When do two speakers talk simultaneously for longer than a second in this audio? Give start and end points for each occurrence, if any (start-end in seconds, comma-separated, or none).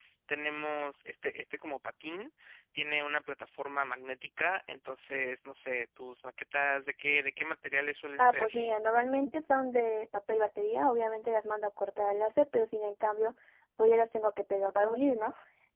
none